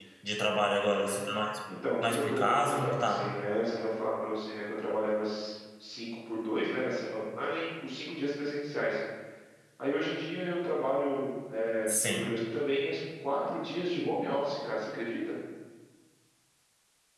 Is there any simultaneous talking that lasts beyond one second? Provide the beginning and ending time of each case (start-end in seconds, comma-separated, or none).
2.0-3.2